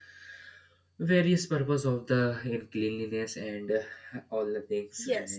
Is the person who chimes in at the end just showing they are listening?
No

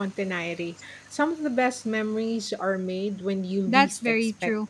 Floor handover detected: Yes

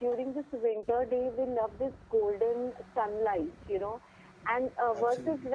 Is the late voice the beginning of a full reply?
No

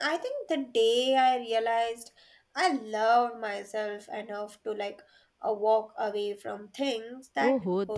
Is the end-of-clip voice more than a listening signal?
Yes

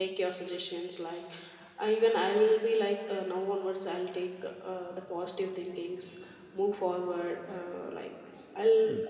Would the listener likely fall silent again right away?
Yes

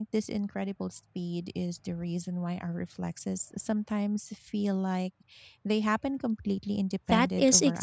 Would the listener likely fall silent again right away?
No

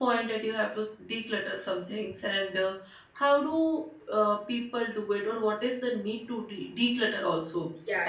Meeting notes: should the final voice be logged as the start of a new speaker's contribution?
Yes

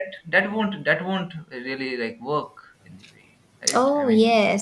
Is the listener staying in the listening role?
No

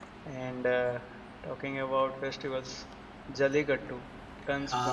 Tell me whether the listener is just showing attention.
Yes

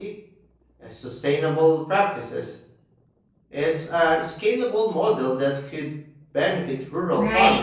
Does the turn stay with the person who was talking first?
No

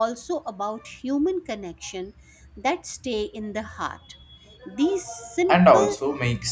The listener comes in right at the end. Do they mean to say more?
Yes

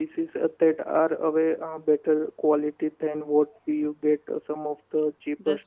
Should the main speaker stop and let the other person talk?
Yes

